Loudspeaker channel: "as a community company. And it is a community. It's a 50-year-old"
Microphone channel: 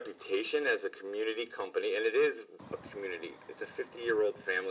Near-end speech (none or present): none